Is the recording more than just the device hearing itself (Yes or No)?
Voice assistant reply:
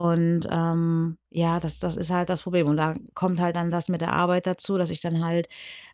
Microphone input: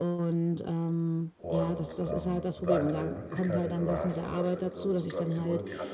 Yes